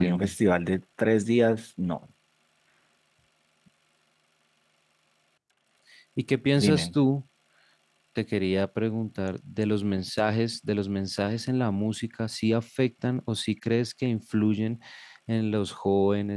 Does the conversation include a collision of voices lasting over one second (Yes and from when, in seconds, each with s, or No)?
No